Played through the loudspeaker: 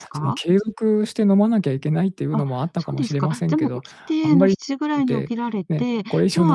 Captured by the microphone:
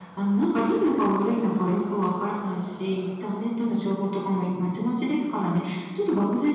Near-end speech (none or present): present